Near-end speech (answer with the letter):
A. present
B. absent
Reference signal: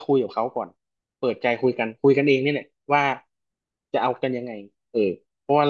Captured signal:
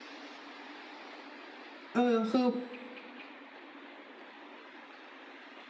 A